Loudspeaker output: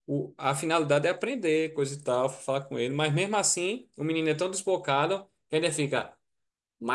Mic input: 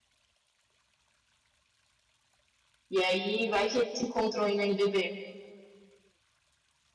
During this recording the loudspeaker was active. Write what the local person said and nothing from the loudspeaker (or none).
E aí vai que eles se encontram aí na NBB.